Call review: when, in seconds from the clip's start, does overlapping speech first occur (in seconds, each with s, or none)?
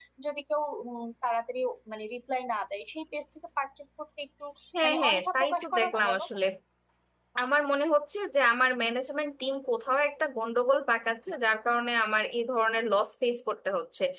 4.8 s